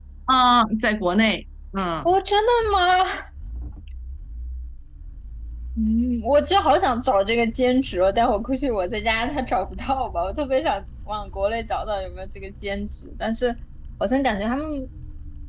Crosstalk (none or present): none